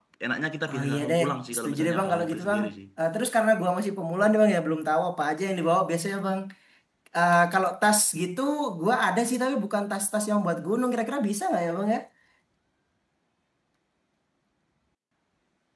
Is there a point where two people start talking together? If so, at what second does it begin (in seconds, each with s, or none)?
0.7 s